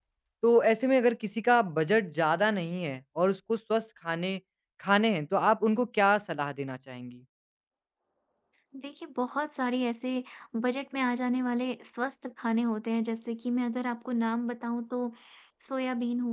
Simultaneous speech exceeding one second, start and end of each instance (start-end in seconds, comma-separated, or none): none